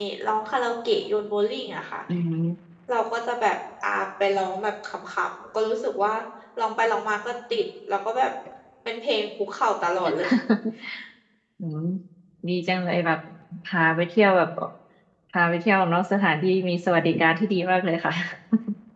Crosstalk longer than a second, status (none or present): none